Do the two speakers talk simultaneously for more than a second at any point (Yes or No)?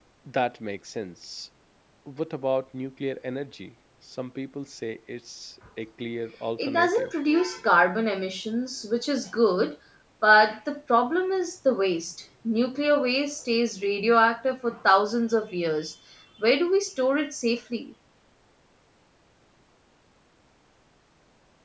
No